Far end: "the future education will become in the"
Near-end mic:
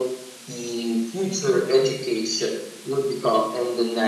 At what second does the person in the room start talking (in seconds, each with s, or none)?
none